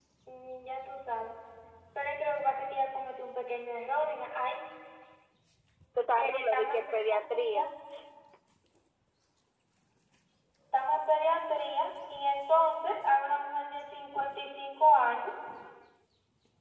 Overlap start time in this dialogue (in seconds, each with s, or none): 6.2 s